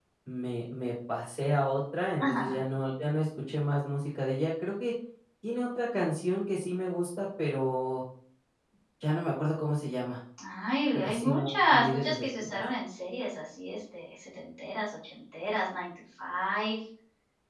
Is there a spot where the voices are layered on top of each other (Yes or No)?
Yes